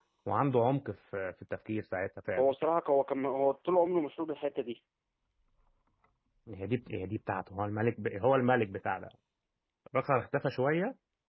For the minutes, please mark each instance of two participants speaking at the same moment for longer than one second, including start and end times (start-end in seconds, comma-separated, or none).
none